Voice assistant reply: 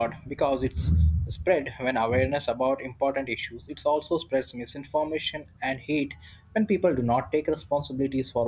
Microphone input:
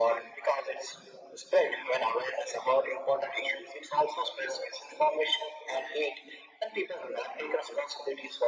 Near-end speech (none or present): none